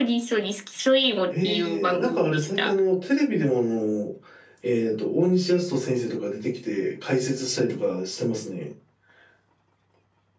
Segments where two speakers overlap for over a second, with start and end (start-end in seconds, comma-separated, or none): 1.3-2.8